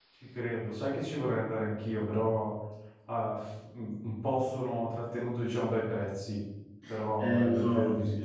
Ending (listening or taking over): taking over